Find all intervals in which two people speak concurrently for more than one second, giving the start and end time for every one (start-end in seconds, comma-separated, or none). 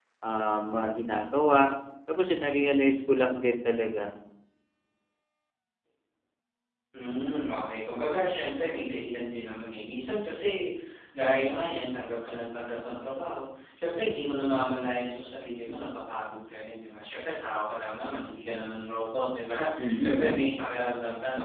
none